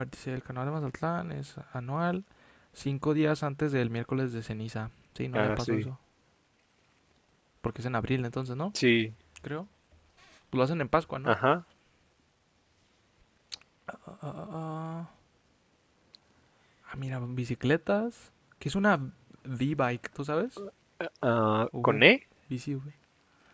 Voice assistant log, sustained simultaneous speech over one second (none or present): none